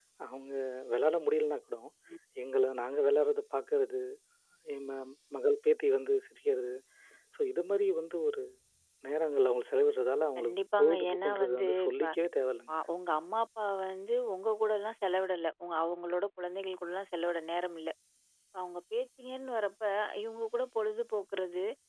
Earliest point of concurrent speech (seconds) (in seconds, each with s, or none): 10.4 s